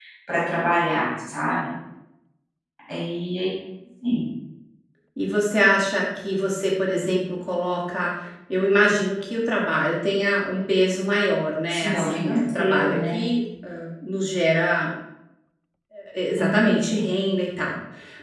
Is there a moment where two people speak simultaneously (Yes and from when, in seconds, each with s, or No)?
Yes, from 11.7 s